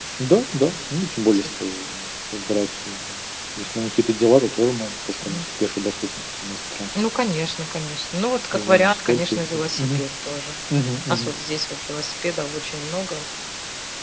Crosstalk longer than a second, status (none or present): present